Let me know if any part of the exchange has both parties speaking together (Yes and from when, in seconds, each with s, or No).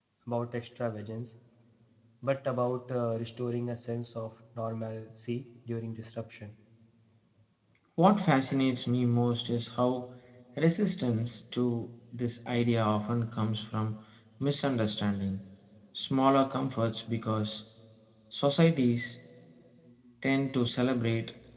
No